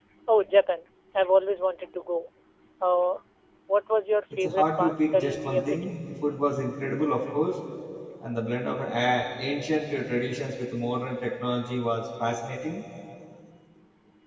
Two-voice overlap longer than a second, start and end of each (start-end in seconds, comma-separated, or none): 4.4-6.0